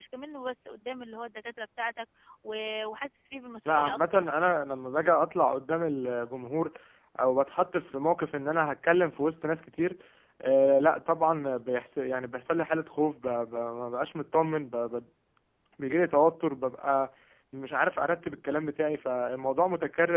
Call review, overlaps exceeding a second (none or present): none